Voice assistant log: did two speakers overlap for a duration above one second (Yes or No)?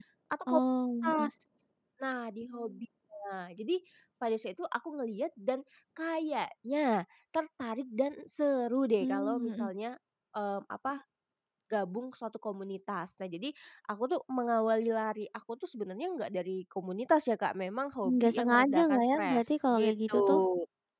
Yes